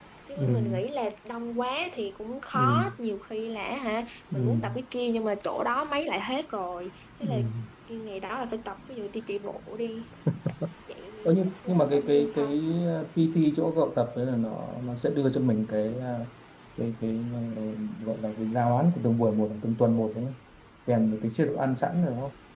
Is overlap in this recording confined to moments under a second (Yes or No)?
No